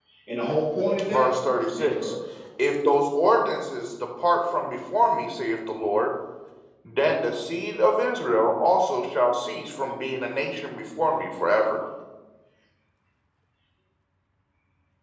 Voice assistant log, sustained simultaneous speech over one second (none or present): none